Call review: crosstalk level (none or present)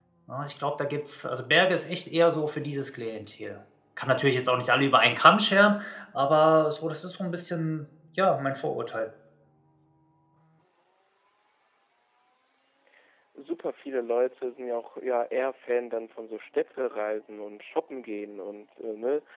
none